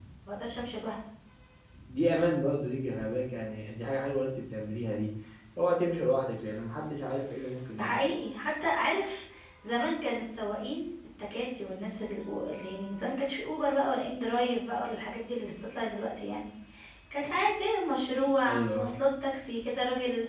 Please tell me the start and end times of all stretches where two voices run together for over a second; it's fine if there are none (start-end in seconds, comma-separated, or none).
none